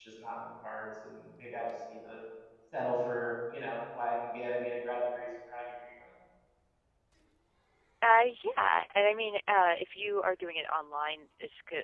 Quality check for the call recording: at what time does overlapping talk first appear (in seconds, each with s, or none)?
none